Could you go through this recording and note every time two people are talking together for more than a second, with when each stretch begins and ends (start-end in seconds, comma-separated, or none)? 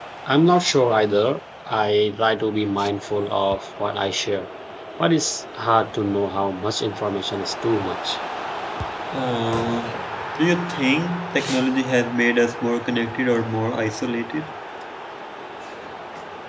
none